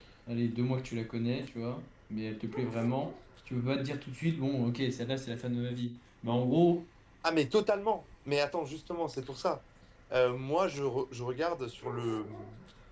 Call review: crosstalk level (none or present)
none